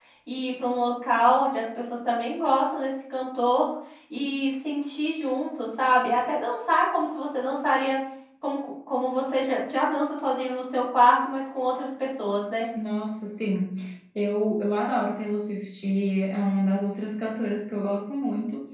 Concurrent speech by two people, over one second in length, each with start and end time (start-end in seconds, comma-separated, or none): none